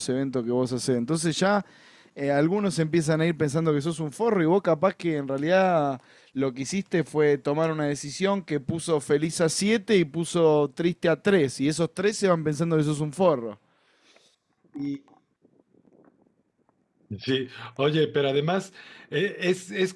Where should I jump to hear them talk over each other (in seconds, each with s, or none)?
none